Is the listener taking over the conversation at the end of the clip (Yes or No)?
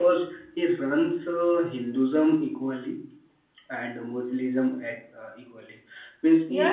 Yes